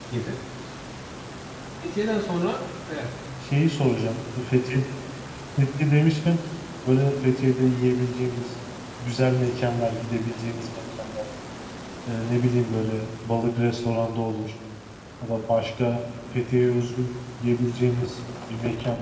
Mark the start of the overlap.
none

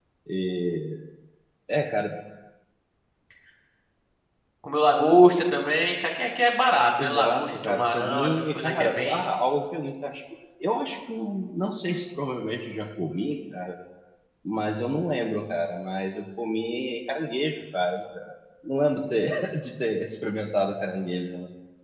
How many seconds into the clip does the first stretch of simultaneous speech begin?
7.0 s

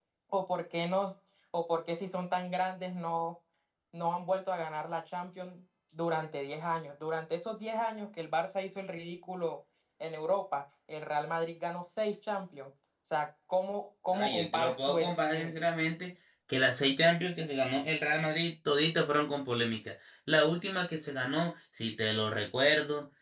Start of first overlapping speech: 14.1 s

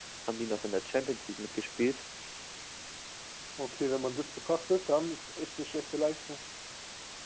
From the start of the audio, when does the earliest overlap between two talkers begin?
none

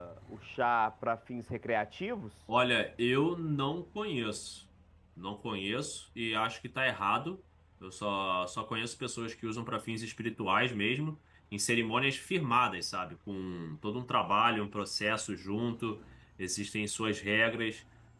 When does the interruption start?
none

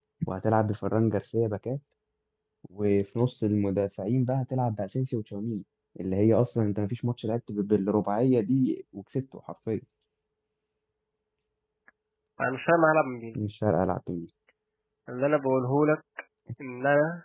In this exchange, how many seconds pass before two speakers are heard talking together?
none

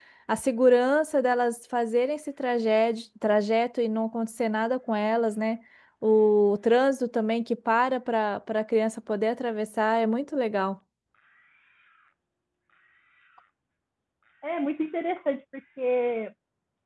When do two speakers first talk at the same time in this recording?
none

